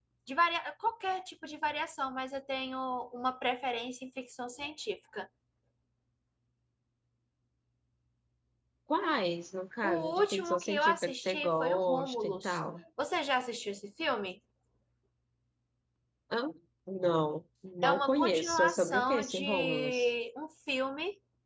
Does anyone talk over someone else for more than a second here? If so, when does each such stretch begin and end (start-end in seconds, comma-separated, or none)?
9.8-12.6, 17.8-20.1